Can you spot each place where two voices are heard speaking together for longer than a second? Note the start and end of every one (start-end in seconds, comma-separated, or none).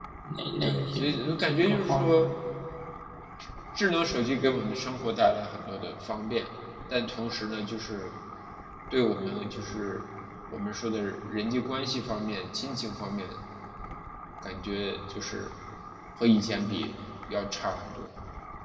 0.6-2.2